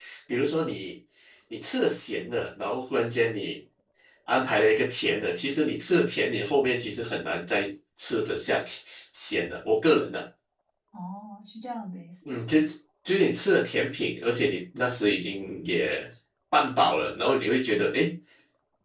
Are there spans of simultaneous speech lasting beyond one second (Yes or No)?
No